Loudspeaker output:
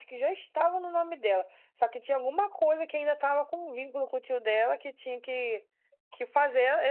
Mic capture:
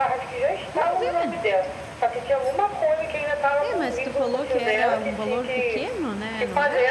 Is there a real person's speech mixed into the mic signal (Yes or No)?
Yes